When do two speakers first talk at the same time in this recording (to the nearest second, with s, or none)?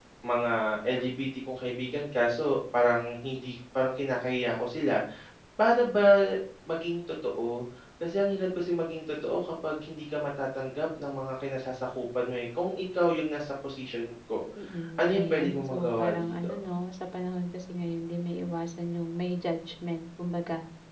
15 s